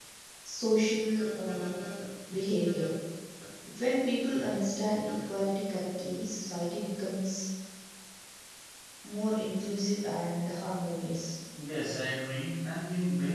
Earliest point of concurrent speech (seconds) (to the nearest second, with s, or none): none